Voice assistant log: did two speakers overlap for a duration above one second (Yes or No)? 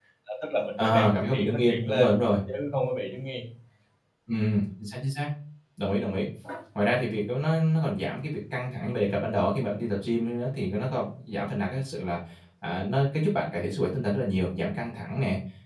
Yes